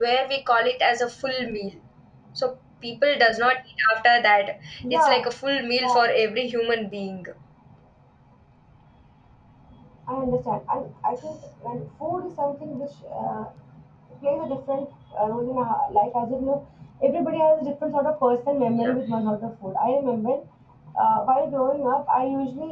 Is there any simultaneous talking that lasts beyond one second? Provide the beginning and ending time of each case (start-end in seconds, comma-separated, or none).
none